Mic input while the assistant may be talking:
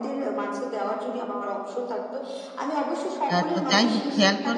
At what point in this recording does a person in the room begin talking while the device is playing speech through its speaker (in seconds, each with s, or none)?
3.3 s